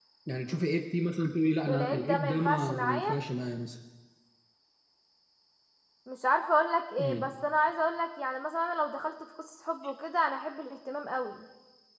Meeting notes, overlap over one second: present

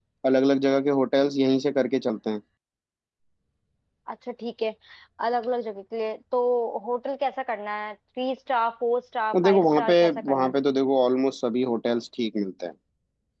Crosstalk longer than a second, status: present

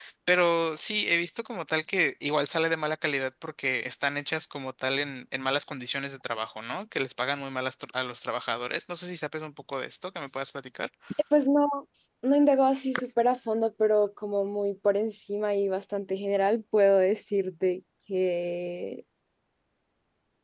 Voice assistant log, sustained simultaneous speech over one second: none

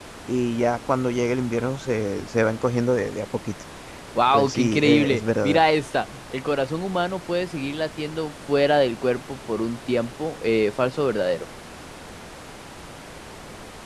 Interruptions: present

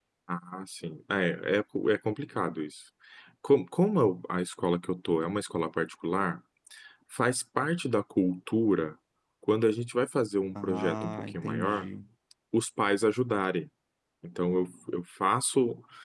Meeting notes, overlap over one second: present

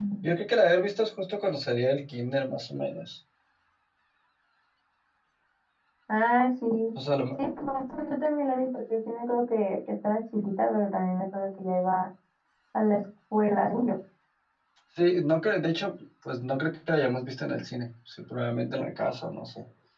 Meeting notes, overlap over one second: none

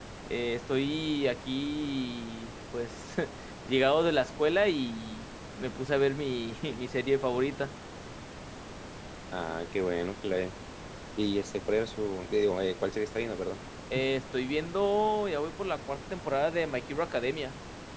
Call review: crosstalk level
none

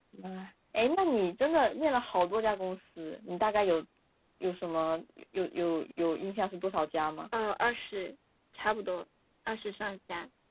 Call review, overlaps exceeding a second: none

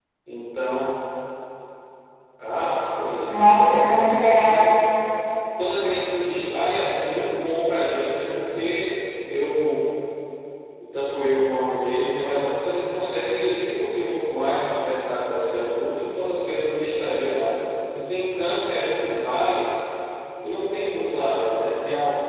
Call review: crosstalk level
present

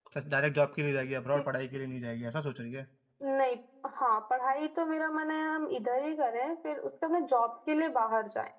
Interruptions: none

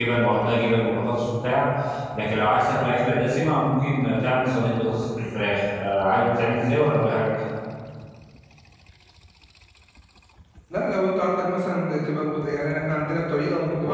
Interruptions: none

